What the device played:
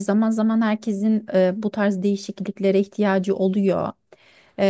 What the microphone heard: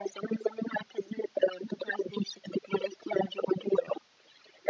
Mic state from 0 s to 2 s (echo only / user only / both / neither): echo only